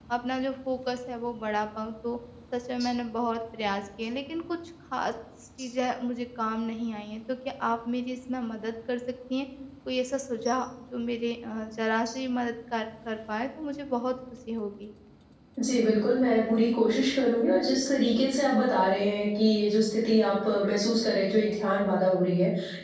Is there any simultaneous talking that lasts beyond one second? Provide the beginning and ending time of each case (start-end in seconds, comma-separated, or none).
none